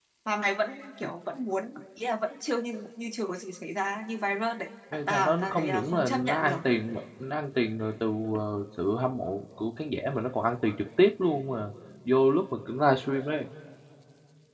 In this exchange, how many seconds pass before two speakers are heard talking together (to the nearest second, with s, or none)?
5 s